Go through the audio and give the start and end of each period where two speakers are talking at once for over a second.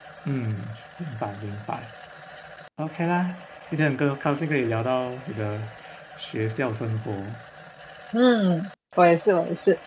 none

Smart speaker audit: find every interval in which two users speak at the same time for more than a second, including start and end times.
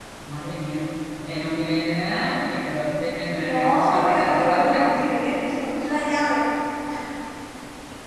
3.5-4.9

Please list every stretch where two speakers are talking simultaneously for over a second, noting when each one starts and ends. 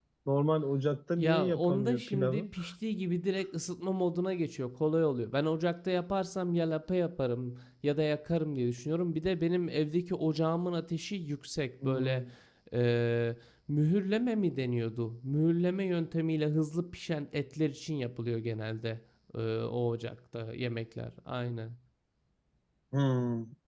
1.2-2.5

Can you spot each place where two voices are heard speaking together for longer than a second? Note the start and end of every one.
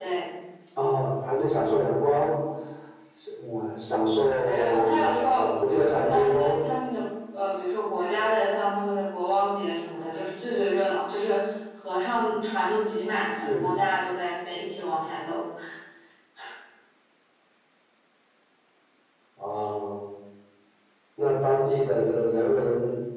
4.3-6.6

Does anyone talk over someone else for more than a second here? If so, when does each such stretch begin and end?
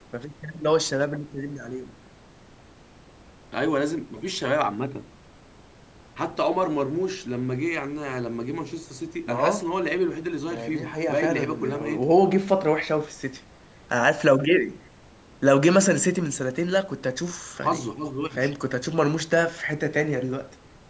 10.5-12.1

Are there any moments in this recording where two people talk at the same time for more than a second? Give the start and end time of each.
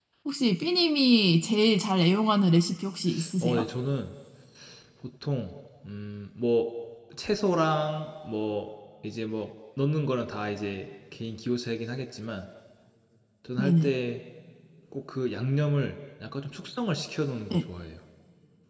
none

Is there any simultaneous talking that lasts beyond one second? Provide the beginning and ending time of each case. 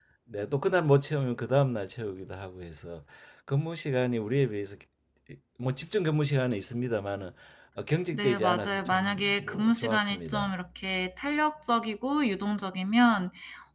8.1-10.5

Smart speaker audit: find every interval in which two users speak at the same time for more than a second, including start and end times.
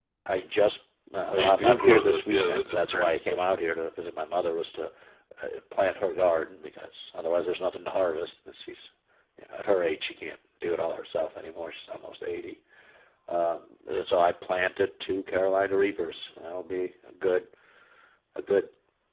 1.3-3.5

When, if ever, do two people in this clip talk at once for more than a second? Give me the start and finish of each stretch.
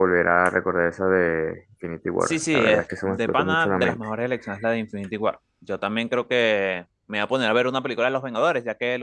2.2-4.0

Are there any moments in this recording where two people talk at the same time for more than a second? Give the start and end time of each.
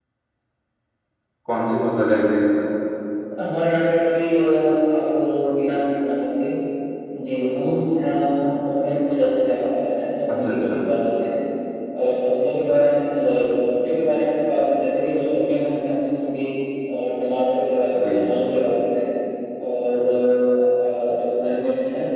none

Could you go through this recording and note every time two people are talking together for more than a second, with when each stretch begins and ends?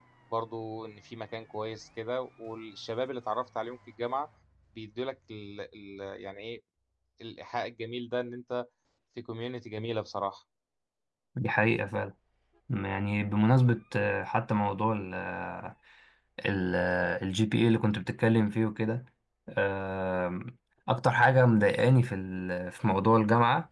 none

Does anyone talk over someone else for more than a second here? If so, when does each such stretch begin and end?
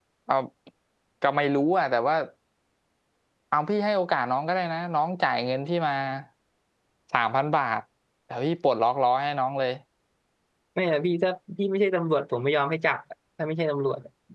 none

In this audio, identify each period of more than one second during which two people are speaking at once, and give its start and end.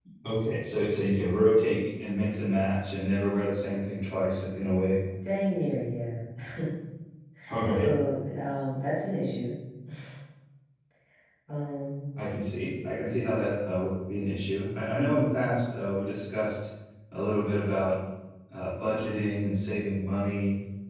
none

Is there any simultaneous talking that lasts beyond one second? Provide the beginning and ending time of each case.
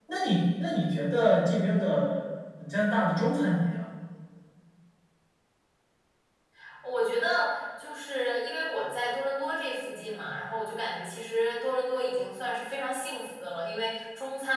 none

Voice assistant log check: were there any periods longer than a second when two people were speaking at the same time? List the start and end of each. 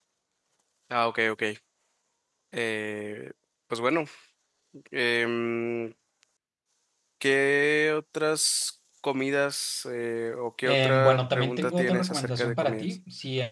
10.6-13.0

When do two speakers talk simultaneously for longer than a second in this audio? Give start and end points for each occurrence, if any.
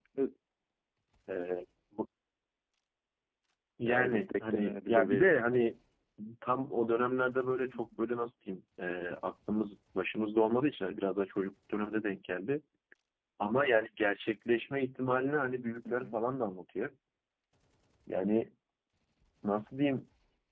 3.9-5.3

